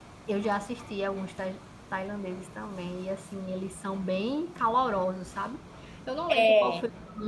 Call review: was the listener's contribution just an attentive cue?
Yes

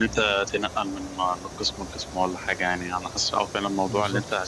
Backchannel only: Yes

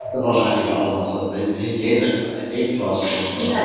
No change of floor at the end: No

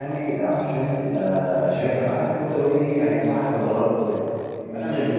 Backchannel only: Yes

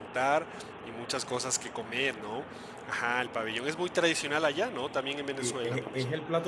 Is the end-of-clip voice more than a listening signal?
Yes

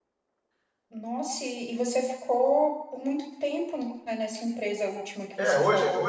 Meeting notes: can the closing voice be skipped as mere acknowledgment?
No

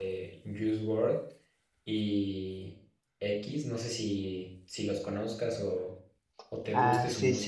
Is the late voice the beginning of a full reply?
Yes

